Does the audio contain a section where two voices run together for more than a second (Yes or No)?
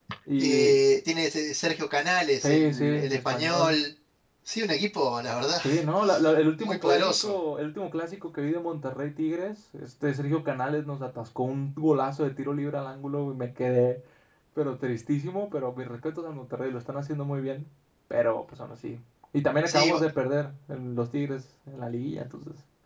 Yes